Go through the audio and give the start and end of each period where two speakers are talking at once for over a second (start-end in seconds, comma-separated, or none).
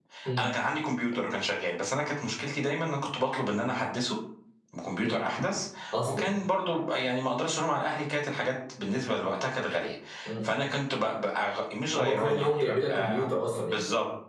11.9-13.3